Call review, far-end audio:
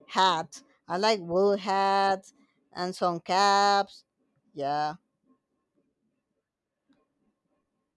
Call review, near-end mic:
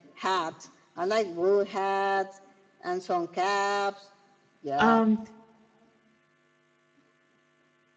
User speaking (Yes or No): Yes